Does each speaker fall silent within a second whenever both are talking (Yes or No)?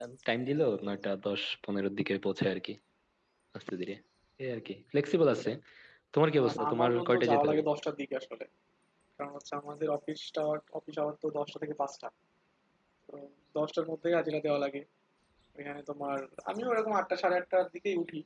No